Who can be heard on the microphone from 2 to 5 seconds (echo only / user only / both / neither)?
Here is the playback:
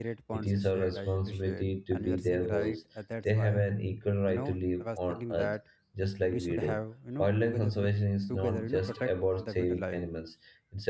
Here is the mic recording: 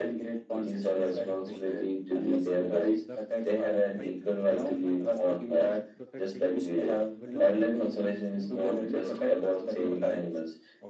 both